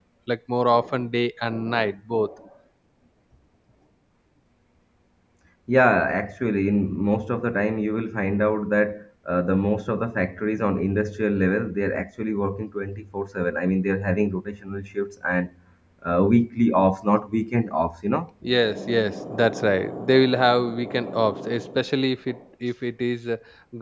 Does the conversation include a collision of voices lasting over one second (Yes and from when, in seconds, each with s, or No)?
No